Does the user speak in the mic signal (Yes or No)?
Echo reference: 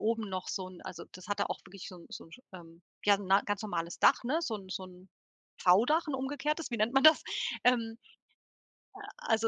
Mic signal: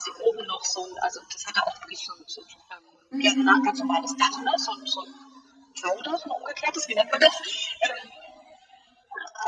Yes